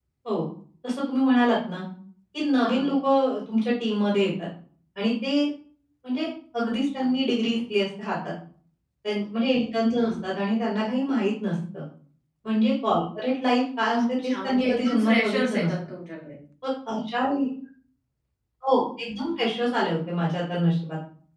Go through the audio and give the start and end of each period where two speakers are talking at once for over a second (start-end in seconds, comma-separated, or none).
13.9-15.7